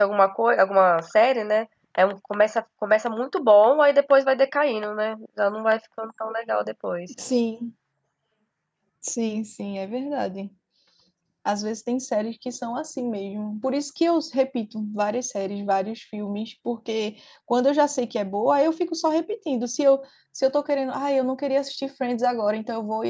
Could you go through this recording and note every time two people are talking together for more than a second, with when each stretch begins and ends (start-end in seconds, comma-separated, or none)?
none